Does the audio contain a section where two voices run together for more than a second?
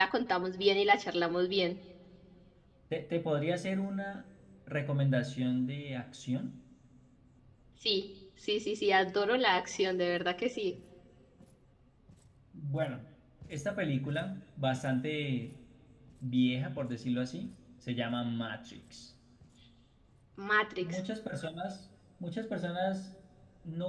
No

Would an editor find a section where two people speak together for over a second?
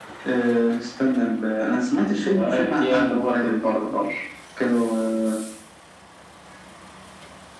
Yes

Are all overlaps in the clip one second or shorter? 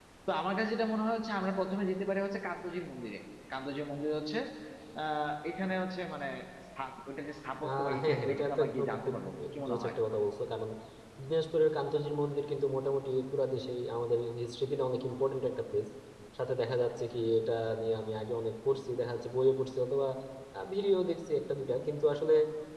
No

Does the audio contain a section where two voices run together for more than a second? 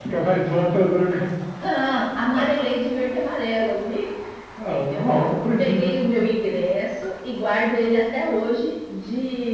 No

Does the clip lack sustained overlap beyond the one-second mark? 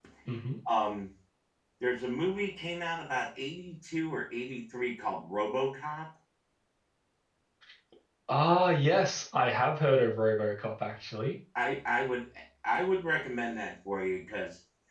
Yes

